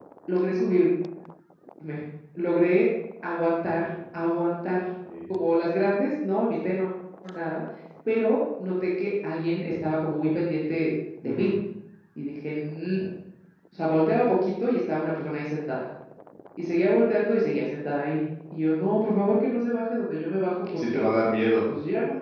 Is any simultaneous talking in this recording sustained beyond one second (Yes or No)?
No